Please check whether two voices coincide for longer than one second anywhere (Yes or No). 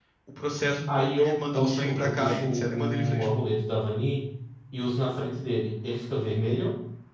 Yes